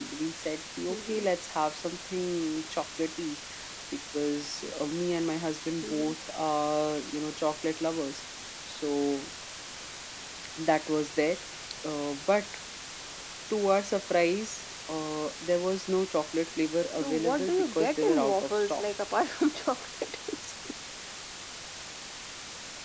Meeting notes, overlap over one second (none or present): present